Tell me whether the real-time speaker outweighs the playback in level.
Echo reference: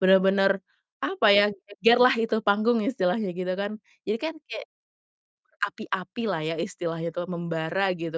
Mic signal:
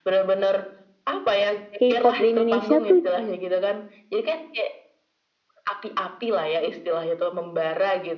Yes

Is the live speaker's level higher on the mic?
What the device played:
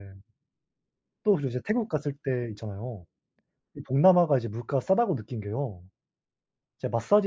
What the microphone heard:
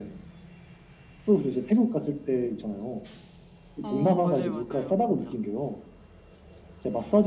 No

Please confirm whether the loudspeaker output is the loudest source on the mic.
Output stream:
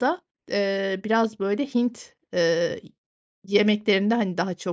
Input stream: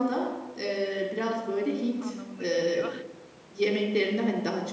Yes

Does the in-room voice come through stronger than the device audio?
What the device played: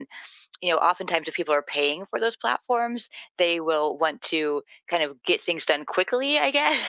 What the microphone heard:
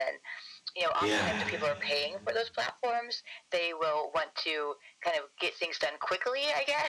Yes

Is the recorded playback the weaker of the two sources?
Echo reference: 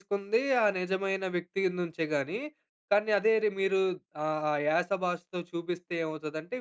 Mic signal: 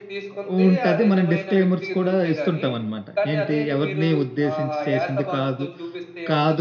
Yes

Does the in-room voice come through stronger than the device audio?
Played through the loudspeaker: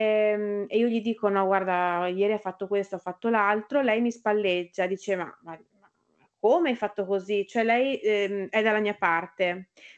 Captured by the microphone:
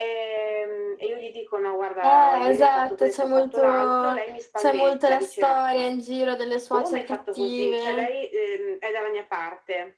Yes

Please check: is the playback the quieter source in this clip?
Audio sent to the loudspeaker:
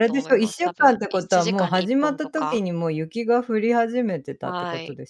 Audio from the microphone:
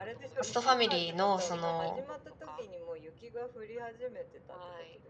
Yes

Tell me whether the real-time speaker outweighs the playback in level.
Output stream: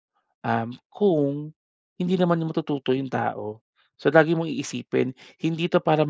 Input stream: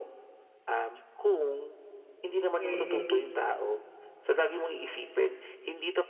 Yes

